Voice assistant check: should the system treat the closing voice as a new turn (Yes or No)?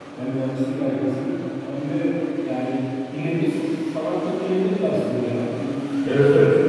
Yes